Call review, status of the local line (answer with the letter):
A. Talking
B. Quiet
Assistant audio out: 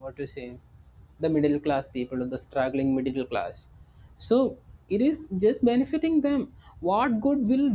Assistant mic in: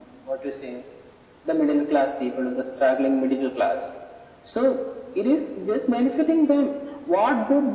B